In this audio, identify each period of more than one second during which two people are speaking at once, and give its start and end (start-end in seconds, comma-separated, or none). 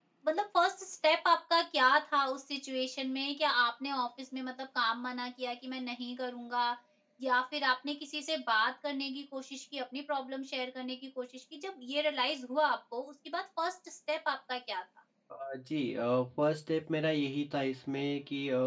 none